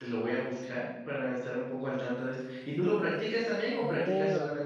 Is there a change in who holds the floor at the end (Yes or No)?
Yes